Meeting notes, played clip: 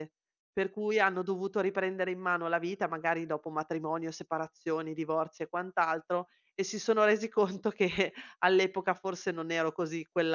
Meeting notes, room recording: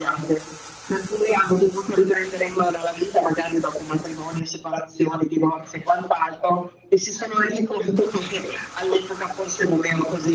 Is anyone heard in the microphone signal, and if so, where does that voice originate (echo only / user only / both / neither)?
echo only